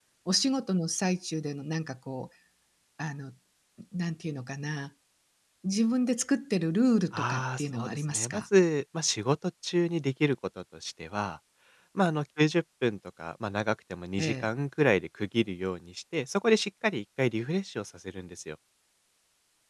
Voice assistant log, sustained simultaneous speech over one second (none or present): present